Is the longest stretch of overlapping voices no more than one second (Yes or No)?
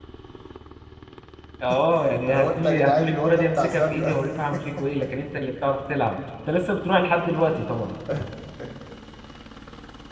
No